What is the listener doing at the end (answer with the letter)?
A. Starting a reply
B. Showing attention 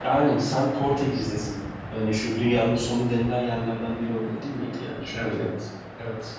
A